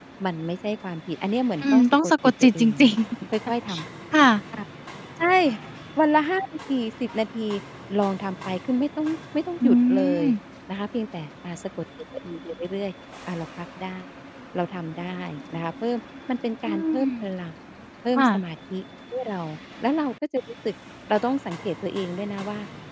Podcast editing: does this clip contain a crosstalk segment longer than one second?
Yes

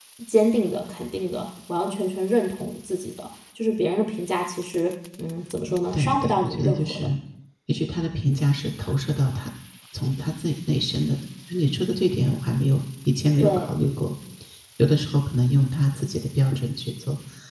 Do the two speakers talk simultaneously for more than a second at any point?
Yes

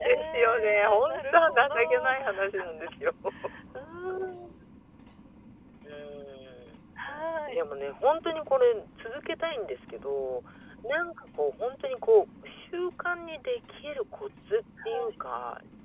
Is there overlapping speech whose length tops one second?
Yes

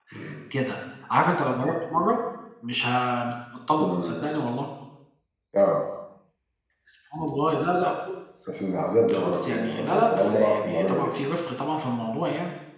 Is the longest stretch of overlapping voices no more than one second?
No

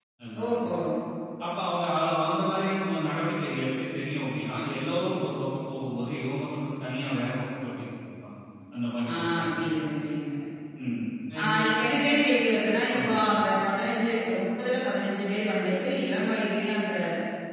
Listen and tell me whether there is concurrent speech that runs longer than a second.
No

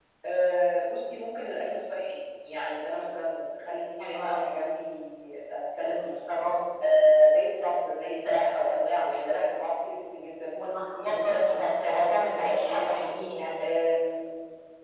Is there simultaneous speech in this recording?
Yes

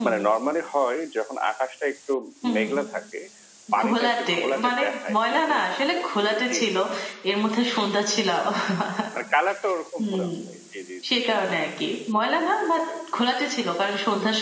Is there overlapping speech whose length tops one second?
Yes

